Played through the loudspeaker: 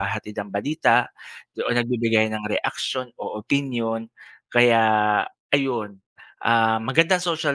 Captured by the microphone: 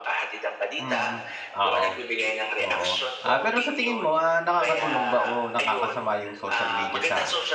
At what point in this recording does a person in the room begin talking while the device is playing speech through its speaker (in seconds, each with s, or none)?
0.8 s